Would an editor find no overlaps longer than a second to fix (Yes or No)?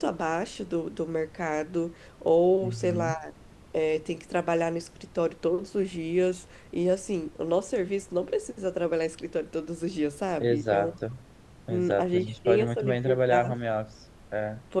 No